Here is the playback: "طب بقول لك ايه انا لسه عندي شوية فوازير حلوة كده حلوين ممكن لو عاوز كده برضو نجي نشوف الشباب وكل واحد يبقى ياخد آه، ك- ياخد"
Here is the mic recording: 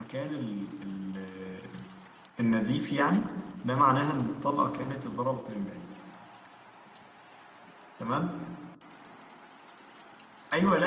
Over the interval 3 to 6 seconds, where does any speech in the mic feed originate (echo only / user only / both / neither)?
user only